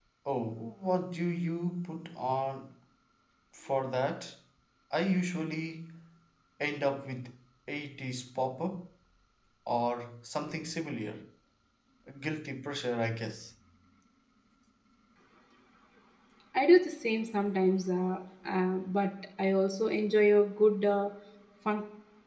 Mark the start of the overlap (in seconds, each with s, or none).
none